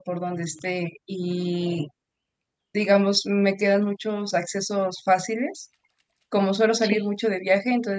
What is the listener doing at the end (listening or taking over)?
listening